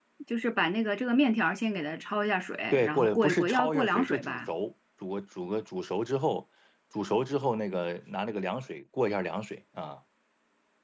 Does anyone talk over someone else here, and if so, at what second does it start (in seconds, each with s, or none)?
2.7 s